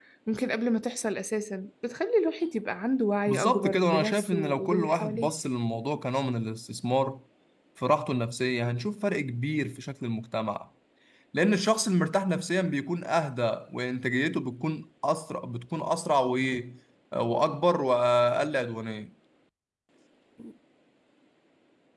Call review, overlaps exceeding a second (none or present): present